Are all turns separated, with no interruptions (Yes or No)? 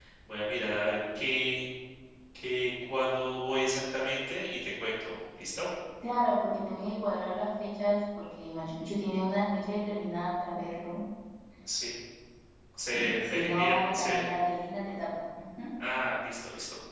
No